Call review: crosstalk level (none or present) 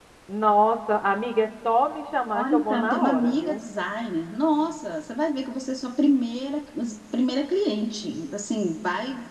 present